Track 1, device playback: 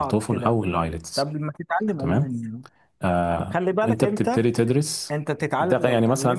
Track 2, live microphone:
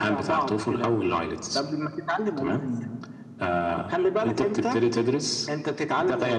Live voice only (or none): none